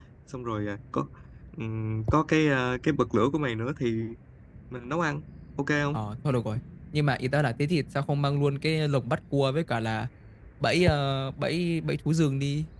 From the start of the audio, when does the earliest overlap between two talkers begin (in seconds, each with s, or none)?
none